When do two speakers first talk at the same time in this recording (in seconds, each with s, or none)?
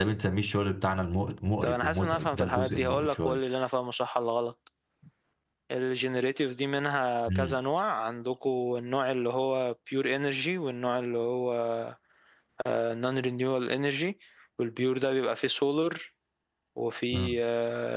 1.6 s